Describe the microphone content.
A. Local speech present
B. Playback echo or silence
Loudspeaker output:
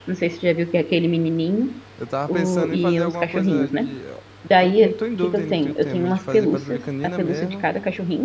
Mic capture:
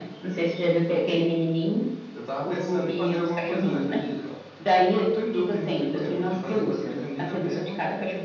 B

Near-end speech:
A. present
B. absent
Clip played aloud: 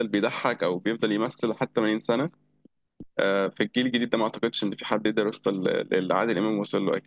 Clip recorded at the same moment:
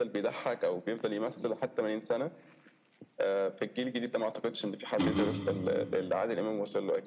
A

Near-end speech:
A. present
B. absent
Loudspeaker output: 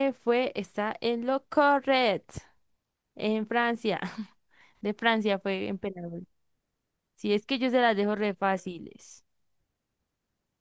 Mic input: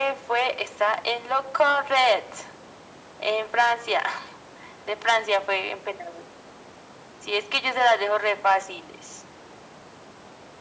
B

